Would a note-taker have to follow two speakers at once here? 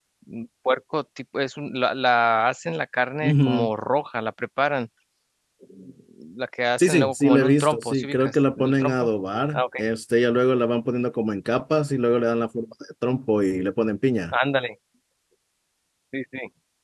Yes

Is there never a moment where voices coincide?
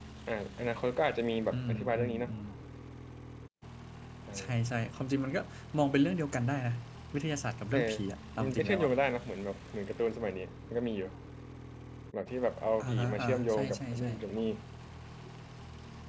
No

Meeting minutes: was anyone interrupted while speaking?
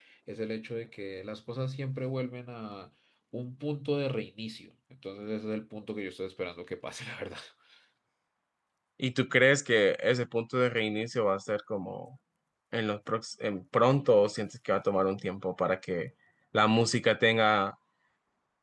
No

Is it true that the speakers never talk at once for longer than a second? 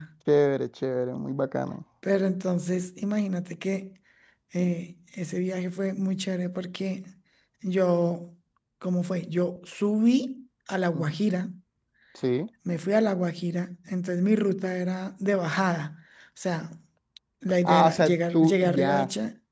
No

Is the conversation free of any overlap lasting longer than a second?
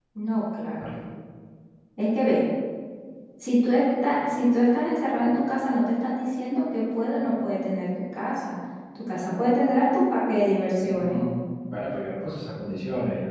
Yes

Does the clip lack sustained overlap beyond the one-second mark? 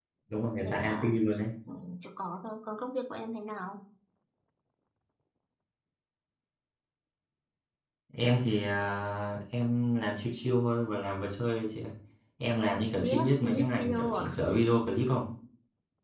No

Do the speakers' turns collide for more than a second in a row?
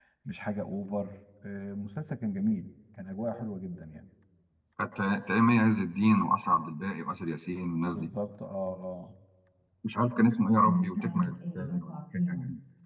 Yes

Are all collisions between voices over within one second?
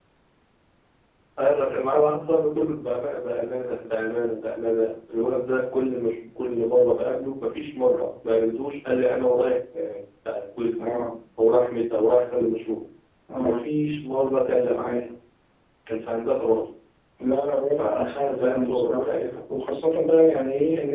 No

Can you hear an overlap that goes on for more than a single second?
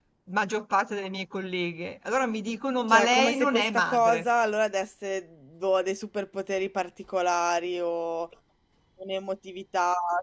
Yes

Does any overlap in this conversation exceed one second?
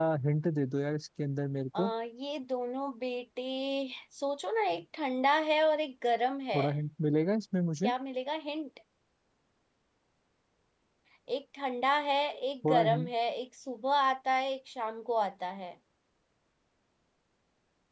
No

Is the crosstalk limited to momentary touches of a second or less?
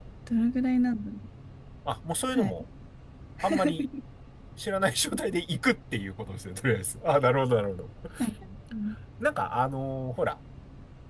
Yes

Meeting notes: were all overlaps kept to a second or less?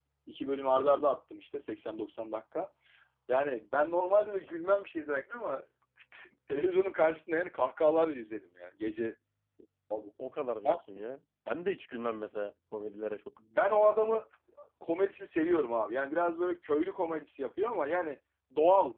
Yes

